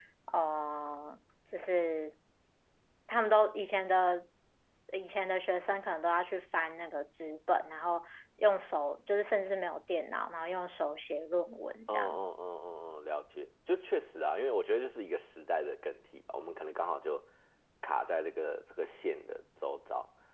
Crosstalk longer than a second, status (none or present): none